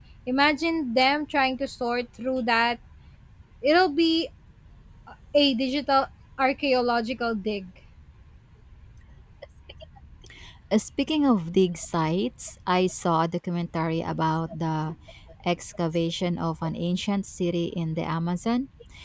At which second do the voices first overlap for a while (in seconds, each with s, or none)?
none